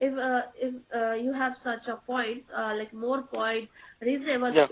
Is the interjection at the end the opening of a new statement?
No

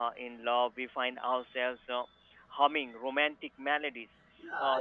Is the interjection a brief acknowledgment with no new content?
No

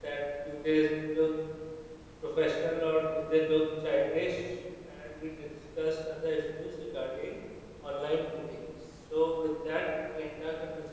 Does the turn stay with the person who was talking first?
Yes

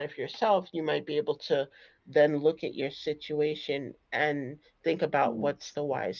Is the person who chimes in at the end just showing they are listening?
Yes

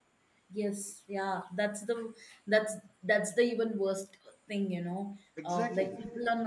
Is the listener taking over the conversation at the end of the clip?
No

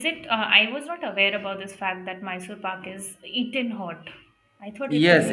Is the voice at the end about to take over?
Yes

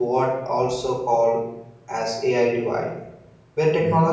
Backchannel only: Yes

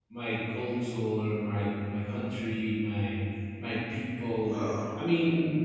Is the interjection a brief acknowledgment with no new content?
Yes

